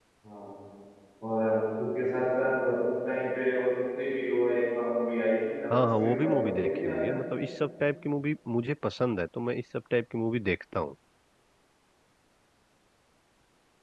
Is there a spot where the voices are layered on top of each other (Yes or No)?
Yes